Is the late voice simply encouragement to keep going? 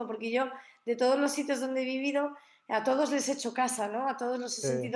Yes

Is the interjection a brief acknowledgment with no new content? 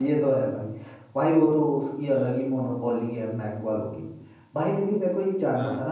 Yes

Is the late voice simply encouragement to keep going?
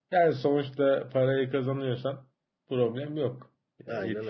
Yes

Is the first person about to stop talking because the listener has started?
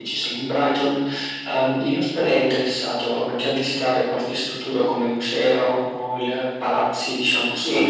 Yes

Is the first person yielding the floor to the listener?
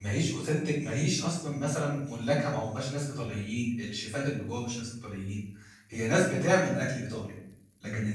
No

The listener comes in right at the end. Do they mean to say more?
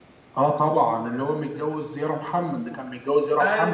Yes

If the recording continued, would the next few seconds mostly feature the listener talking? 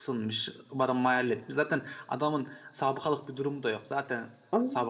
Yes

